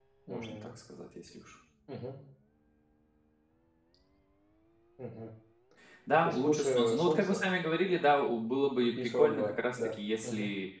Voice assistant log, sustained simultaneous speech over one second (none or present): present